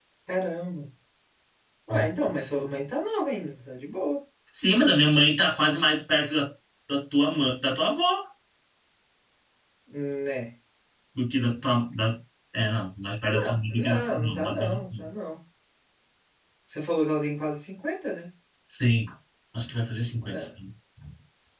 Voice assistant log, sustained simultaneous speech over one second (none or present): present